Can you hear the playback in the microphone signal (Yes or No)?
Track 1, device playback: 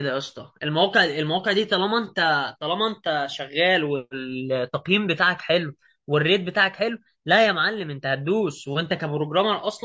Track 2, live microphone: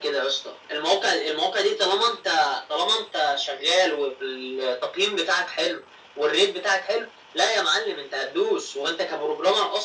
Yes